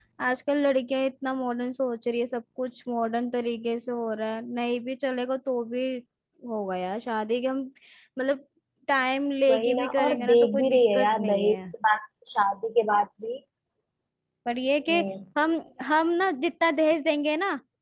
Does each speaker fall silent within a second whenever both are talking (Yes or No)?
No